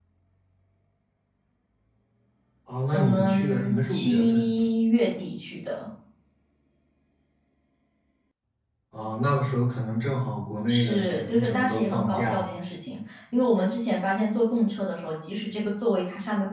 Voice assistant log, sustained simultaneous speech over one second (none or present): present